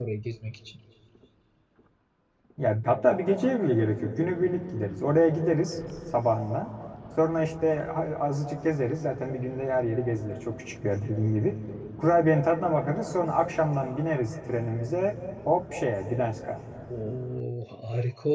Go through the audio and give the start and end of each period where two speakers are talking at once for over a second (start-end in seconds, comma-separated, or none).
none